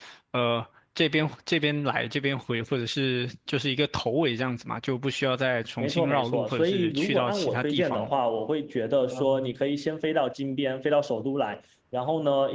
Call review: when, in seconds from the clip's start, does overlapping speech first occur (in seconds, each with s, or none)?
5.8 s